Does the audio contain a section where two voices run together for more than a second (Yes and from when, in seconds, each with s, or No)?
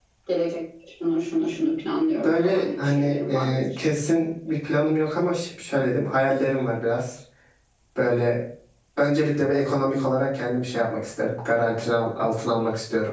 Yes, from 2.2 s